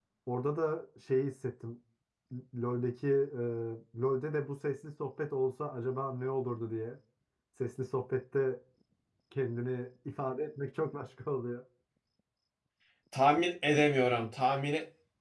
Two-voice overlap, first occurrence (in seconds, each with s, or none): none